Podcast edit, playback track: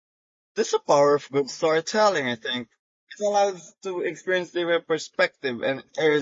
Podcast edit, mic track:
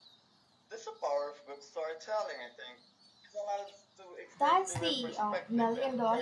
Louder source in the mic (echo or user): user